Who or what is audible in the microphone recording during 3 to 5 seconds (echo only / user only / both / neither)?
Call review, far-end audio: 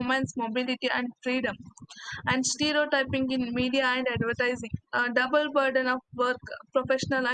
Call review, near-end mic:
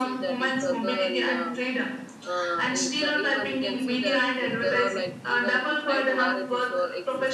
both